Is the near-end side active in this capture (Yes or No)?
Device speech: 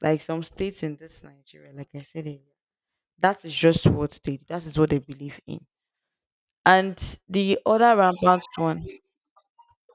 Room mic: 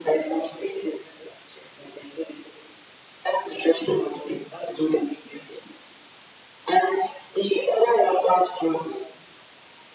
No